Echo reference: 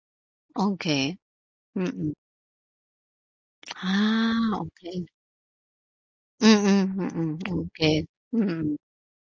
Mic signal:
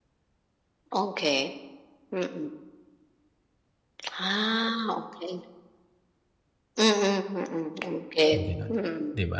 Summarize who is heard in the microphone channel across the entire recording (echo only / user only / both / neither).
both